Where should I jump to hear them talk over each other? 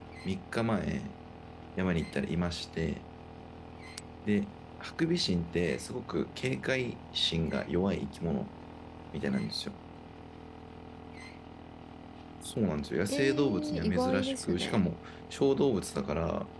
13.1 s

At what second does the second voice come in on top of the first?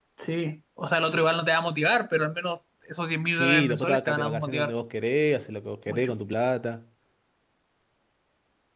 3.3 s

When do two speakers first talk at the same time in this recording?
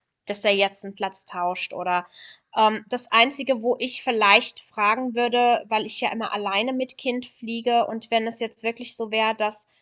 none

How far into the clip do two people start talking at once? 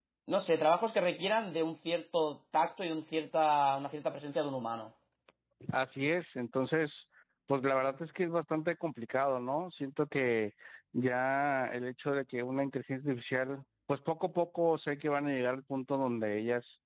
none

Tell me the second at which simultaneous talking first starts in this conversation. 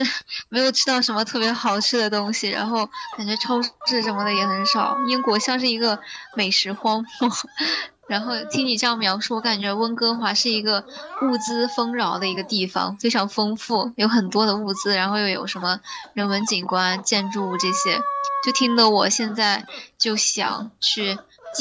none

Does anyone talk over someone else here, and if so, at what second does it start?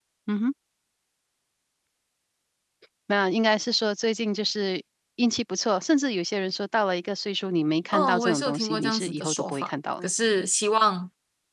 7.9 s

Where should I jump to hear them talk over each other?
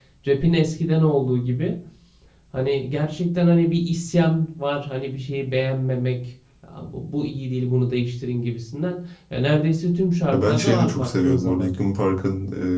10.3 s

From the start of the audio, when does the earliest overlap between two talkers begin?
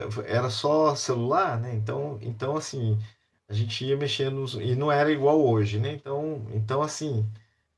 none

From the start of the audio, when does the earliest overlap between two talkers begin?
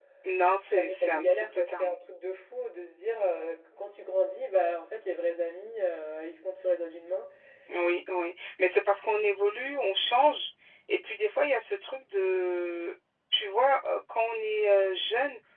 0.7 s

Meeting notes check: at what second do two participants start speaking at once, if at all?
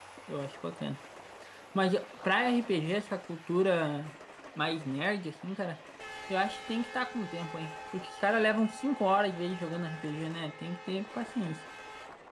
none

